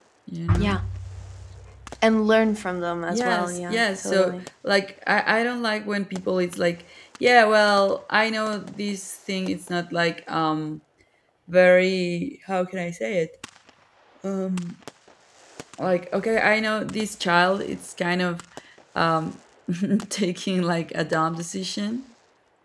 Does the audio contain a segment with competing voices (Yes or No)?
Yes